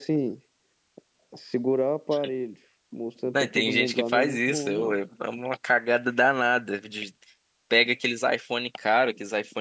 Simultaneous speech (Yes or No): Yes